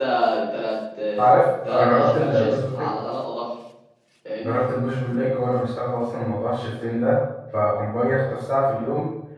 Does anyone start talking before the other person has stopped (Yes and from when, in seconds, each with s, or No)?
Yes, from 1.6 s